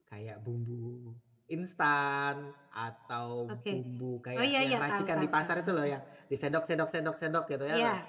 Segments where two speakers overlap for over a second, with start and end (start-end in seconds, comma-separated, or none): 4.4-5.9